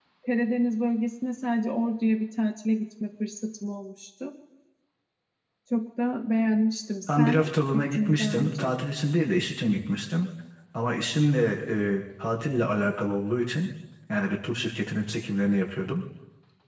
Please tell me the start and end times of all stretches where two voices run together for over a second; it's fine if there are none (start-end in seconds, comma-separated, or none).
7.2-8.7